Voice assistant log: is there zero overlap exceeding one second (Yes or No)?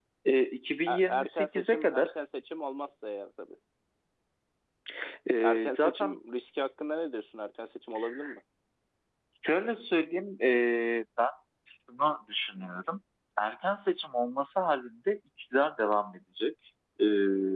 No